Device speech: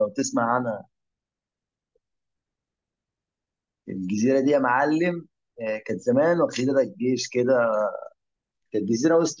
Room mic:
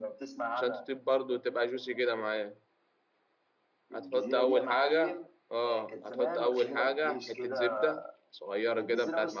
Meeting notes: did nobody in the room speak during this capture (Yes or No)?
No